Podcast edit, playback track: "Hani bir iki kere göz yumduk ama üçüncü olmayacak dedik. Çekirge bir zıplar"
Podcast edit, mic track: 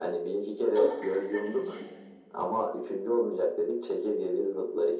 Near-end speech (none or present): present